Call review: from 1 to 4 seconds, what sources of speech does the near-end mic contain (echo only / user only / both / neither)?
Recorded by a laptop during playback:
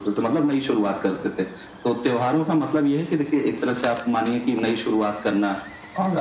echo only